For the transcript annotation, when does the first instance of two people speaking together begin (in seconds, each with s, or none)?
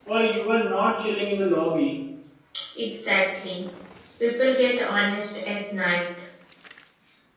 none